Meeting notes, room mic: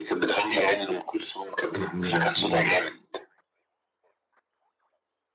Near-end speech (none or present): present